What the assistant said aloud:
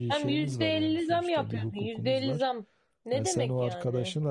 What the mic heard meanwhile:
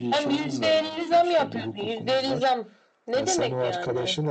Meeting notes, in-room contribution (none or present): none